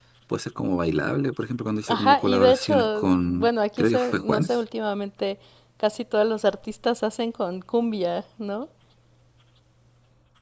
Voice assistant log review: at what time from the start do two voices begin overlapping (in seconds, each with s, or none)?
1.9 s